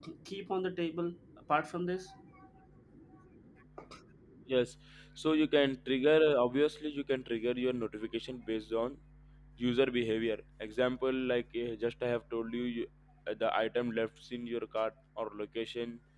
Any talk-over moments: No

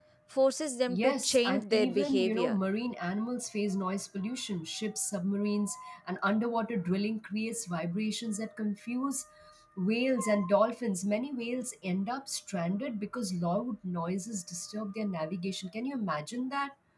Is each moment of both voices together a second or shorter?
No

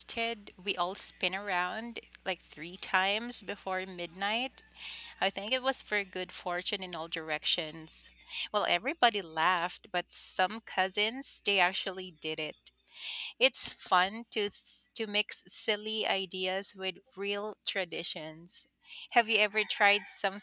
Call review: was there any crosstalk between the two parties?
No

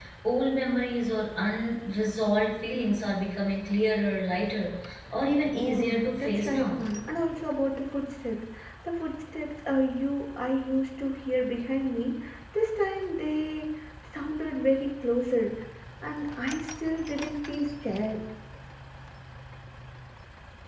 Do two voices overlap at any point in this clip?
Yes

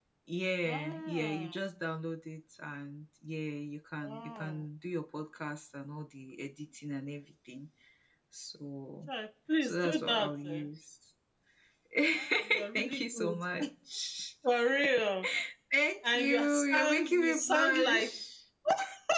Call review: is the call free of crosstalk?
No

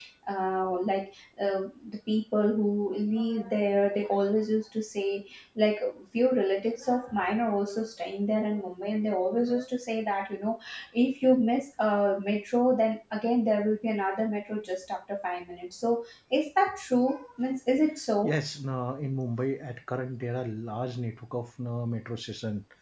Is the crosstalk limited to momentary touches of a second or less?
Yes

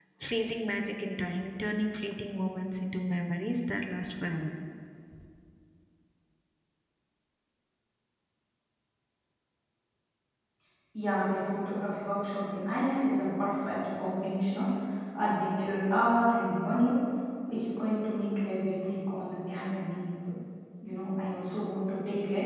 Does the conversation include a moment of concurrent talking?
No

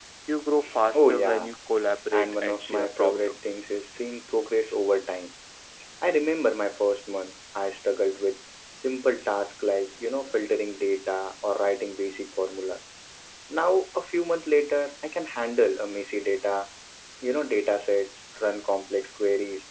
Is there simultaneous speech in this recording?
Yes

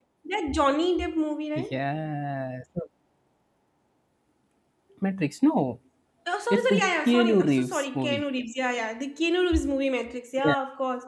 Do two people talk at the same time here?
Yes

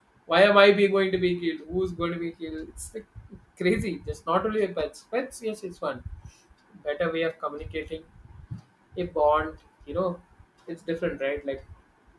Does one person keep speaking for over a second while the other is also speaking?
No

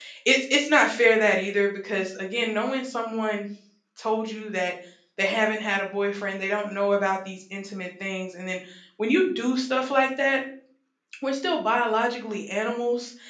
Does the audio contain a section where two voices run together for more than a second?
No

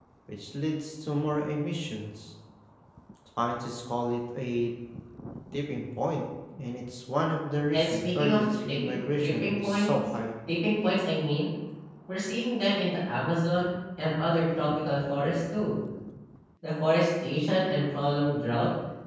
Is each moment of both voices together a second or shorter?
No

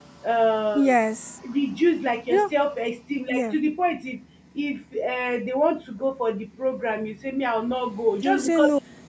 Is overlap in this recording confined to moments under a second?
Yes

